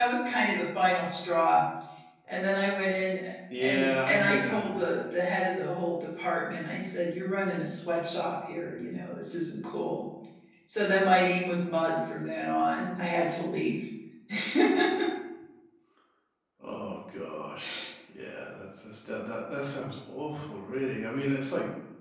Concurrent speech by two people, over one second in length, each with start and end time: 3.6-4.8

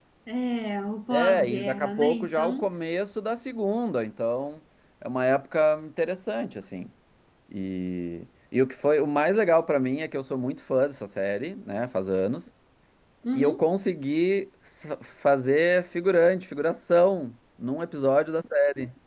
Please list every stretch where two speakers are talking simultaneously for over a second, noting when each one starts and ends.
1.1-2.7

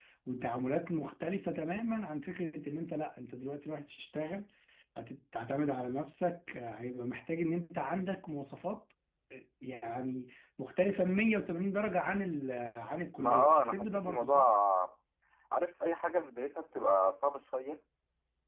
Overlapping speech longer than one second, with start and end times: 13.2-14.5

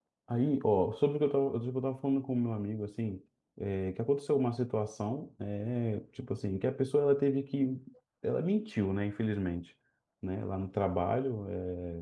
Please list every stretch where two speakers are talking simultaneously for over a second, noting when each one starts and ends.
none

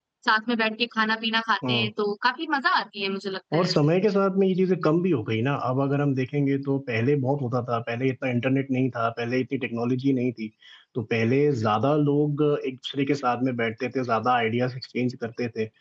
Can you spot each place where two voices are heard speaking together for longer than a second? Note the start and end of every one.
none

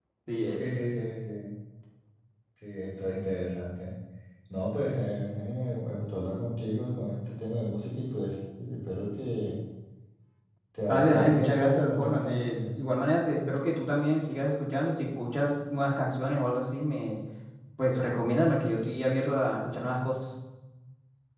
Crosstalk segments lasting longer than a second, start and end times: 10.9-12.7

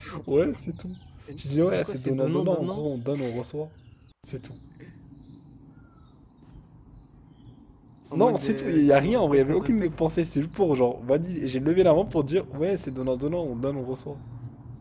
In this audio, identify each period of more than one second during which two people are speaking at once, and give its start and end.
1.4-2.8, 8.1-9.9

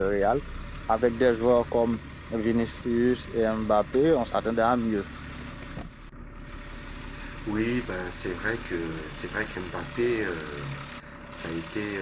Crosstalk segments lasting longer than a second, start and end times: none

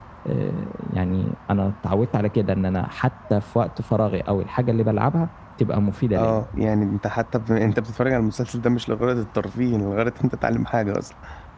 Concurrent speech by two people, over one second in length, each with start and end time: none

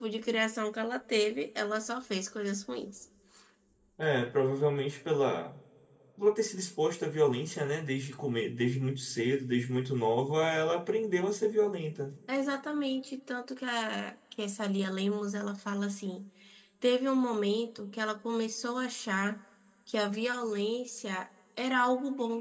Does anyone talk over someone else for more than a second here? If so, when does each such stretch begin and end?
none

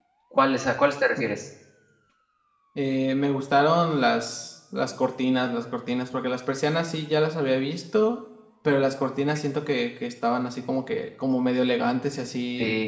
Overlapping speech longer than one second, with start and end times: none

